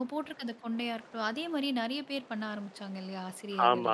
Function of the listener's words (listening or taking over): taking over